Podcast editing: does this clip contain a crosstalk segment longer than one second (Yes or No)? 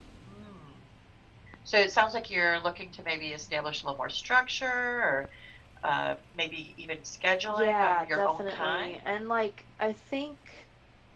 Yes